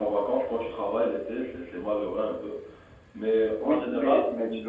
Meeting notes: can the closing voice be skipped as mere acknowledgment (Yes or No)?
No